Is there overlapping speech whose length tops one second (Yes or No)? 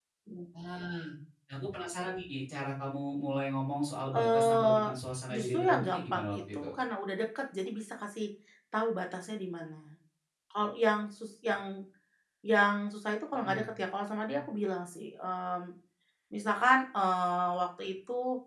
Yes